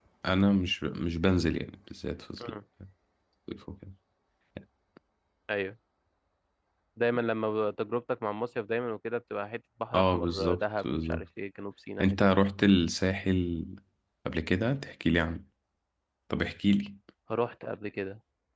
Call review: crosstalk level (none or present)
present